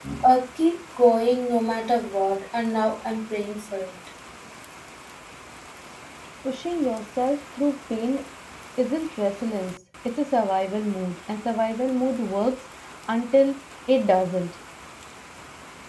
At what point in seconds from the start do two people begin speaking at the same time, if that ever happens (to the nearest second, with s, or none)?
none